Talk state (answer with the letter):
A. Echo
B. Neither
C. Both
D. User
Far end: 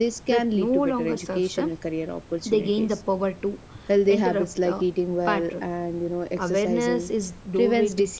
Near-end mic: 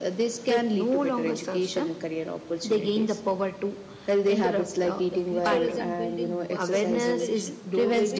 C